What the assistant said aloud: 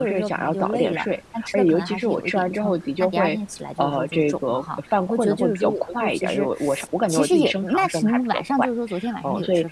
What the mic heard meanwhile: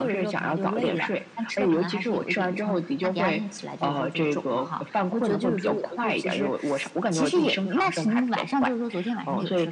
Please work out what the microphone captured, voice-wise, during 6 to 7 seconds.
echo only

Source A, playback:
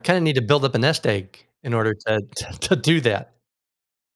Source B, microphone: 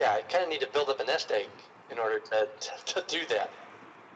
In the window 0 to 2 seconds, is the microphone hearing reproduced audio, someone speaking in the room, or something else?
echo only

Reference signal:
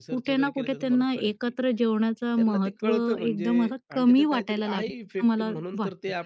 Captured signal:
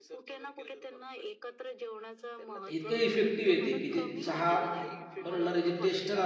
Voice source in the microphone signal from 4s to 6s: both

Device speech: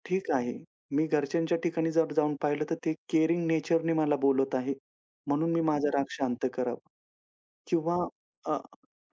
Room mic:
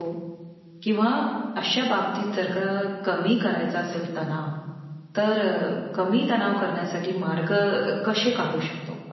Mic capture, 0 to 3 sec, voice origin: user only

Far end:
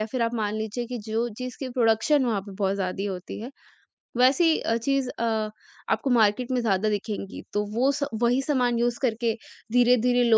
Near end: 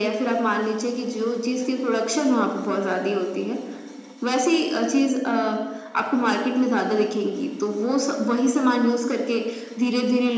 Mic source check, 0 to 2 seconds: echo only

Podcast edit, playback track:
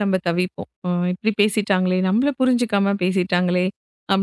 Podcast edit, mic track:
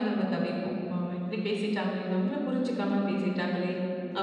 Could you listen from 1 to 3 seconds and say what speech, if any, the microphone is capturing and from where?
echo only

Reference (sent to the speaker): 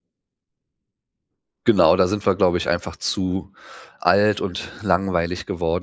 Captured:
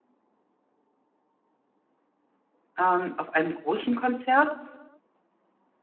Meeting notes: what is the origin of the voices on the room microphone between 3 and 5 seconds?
user only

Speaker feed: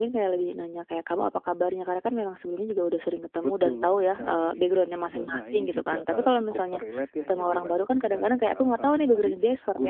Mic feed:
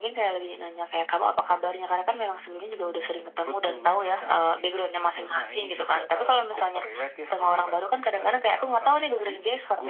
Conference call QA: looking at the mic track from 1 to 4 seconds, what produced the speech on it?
echo only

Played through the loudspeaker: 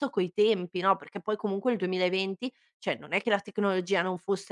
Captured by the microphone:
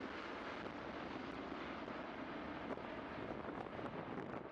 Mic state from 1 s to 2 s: neither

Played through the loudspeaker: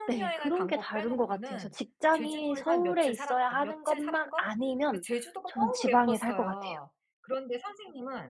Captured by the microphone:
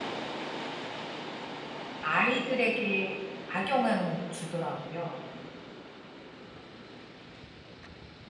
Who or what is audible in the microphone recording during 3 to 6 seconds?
user only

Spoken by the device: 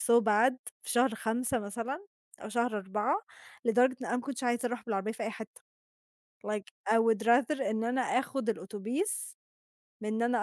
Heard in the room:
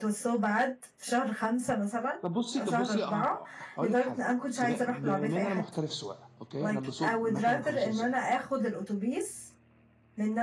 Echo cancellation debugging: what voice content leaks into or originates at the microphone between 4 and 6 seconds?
both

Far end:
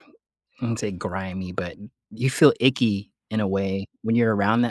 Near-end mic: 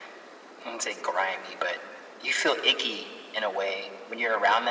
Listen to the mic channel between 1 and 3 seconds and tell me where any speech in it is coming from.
echo only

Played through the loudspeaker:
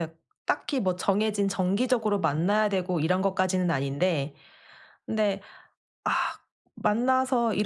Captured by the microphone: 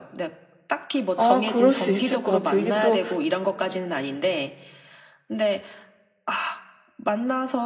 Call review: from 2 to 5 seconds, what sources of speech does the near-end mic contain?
both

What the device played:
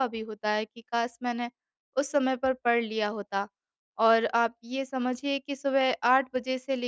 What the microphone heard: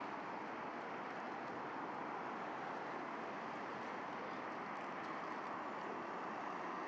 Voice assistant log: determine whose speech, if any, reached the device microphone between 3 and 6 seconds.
neither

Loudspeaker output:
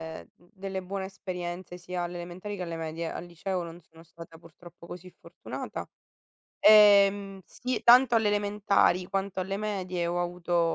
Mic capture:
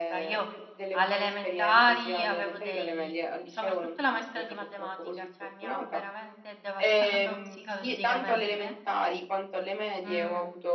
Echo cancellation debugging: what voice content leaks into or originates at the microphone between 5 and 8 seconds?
both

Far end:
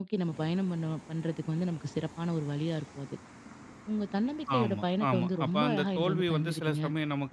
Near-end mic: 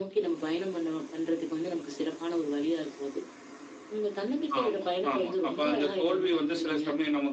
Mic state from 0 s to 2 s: echo only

